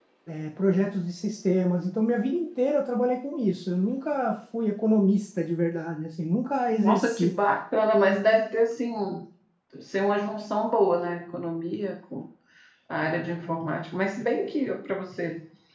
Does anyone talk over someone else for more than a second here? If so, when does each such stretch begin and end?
none

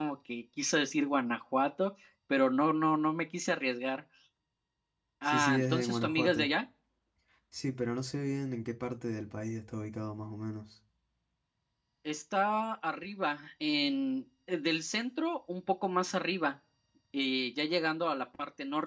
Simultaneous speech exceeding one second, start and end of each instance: 5.2-6.5

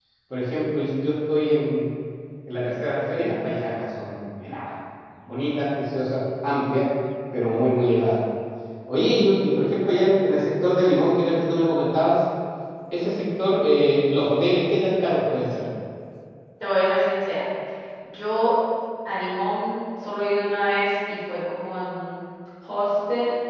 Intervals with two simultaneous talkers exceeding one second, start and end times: none

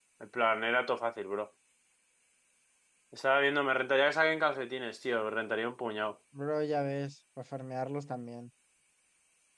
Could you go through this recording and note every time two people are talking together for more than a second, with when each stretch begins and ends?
none

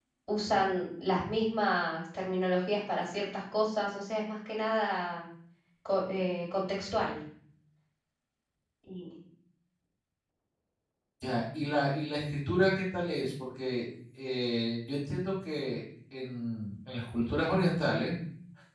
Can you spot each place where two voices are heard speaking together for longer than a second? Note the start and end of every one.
none

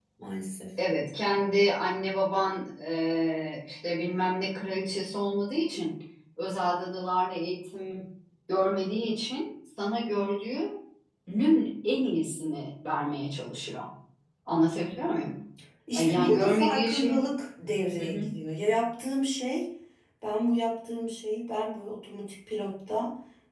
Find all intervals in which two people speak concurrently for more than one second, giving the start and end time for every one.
15.9-17.2

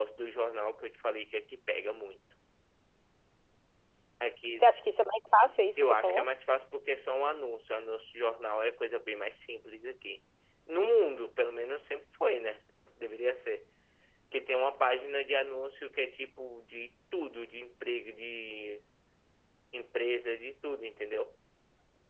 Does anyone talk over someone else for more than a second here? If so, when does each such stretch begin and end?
none

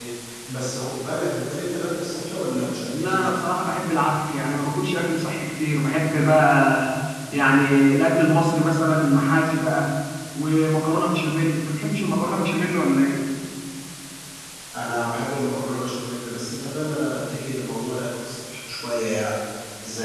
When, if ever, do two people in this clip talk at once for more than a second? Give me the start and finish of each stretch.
none

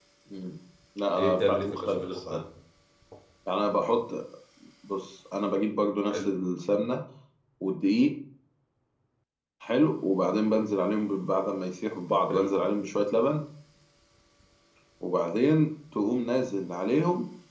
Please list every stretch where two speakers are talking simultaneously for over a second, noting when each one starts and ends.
1.2-2.4

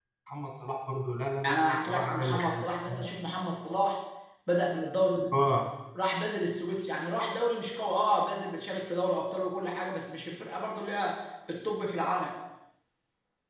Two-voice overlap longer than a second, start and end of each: 1.4-2.6

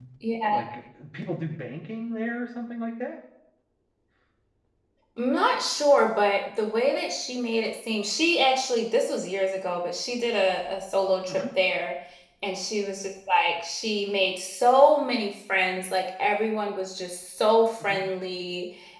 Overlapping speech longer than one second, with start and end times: none

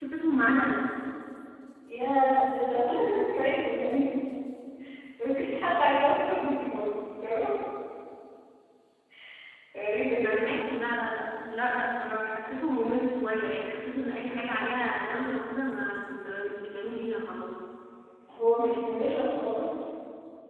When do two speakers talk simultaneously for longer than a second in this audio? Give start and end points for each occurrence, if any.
none

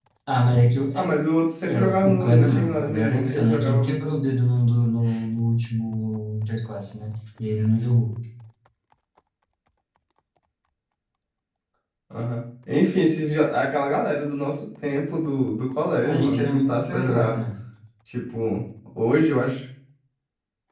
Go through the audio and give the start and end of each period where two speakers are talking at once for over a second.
1.7-4.0, 16.0-17.4

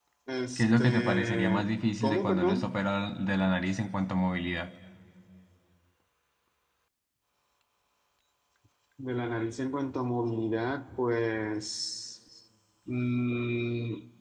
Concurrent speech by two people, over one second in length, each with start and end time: 0.6-2.8

